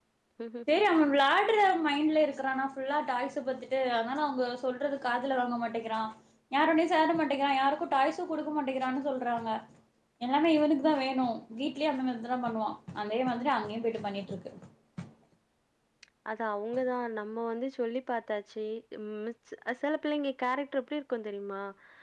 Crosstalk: none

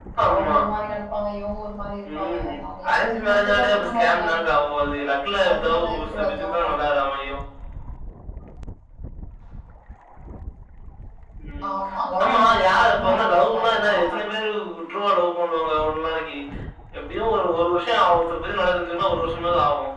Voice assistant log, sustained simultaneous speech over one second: present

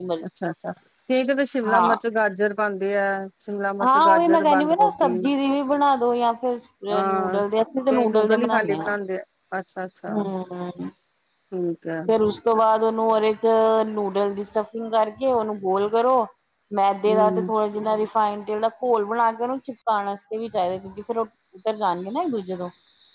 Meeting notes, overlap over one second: present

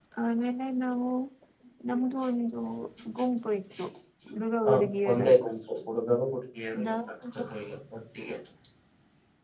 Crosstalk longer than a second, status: none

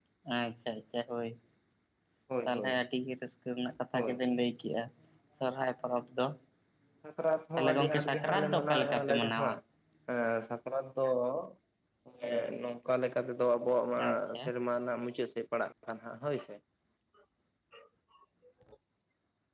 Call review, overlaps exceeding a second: present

